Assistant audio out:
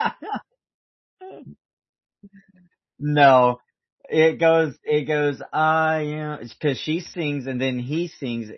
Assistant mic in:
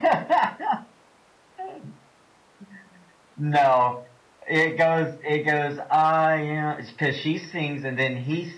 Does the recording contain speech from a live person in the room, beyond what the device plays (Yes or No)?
No